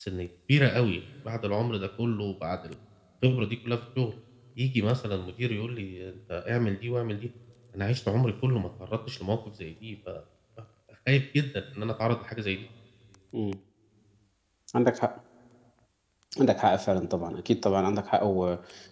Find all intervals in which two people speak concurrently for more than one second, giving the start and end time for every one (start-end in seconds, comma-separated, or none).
none